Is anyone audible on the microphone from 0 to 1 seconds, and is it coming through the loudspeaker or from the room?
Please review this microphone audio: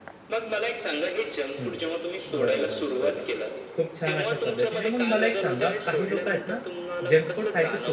echo only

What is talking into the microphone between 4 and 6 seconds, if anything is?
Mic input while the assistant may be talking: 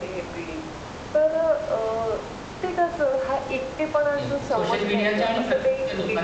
both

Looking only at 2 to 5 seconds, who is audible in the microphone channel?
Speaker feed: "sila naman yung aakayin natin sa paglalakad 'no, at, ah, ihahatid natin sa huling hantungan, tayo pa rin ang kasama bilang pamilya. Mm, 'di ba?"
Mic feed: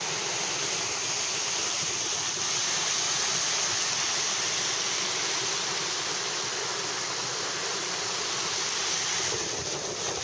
neither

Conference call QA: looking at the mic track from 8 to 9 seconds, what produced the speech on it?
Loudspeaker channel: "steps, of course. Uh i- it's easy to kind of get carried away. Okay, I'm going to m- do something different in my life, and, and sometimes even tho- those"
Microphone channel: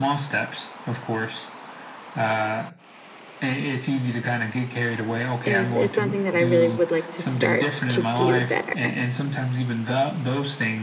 both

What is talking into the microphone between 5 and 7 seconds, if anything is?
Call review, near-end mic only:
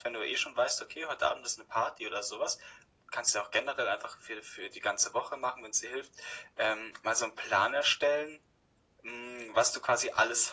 echo only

